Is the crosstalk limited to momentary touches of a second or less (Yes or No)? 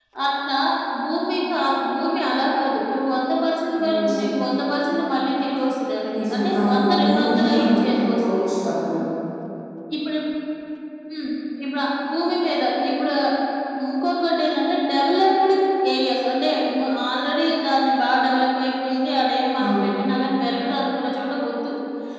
No